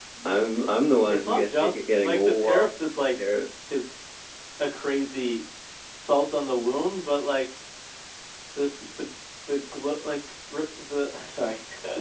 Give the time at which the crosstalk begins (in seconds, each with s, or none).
1.1 s